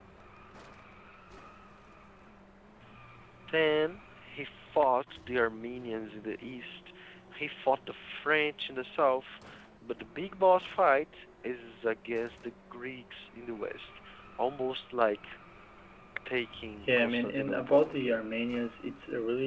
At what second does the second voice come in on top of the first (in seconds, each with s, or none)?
16.9 s